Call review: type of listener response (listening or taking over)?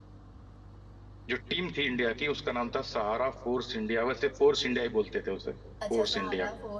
taking over